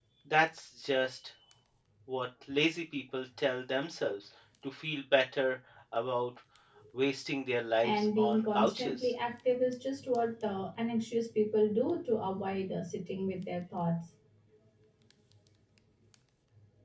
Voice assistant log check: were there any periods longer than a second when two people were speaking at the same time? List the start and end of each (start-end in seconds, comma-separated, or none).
7.8-9.1